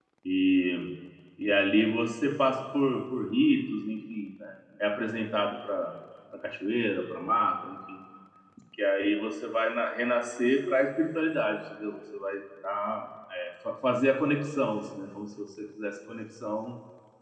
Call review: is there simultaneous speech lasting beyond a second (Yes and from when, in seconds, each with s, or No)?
No